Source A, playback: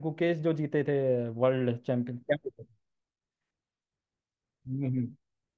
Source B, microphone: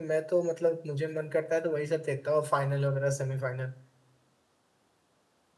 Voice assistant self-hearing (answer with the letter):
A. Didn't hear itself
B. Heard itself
A